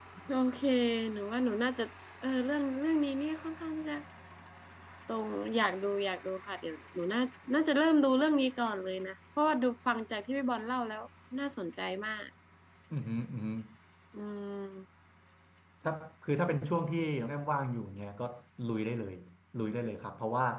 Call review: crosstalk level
none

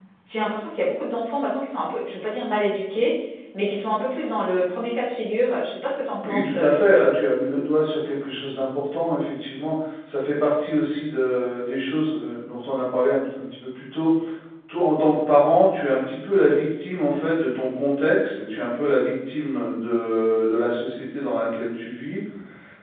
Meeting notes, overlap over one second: none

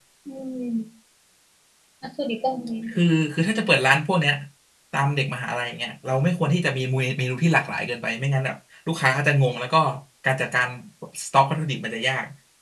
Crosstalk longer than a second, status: none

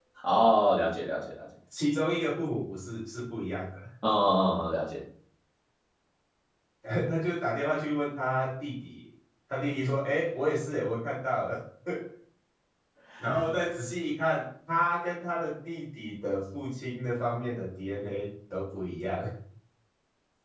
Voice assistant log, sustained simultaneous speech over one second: none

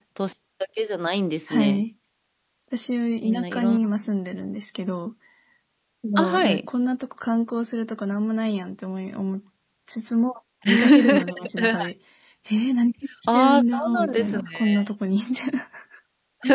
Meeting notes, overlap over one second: present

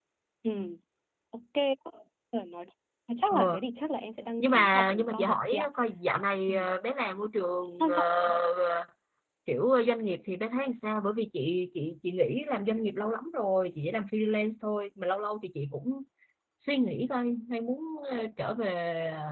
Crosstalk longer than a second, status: present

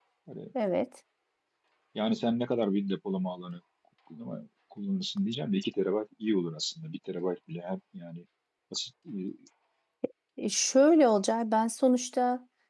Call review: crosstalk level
none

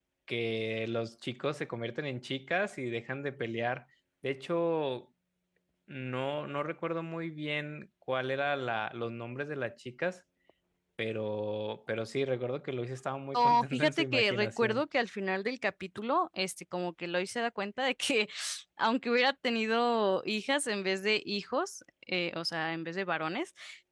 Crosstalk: present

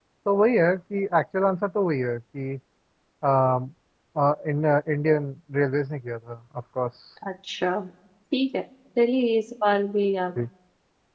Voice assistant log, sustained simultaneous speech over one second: none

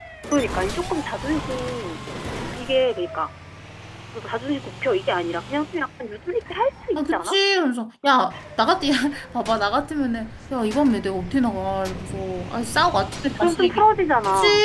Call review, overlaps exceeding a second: none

